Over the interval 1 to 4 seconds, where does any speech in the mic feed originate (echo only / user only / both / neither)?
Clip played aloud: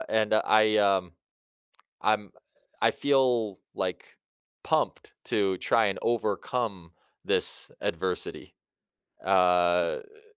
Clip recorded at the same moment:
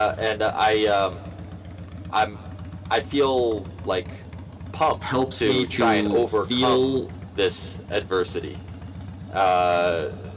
echo only